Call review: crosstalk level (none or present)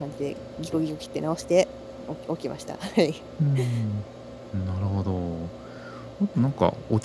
none